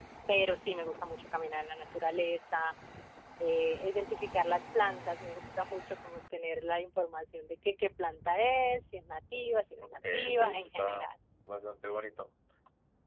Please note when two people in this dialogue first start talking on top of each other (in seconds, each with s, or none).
9.8 s